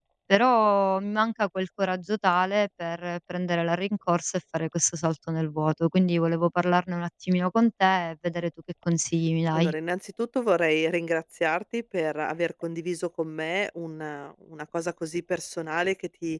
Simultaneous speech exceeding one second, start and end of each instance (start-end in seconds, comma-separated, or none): none